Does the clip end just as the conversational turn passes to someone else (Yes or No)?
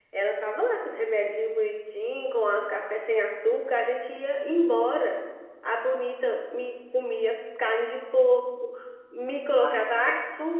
No